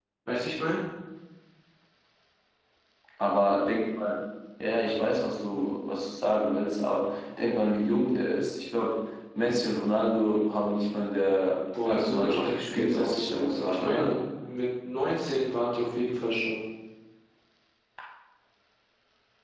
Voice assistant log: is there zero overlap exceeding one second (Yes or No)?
No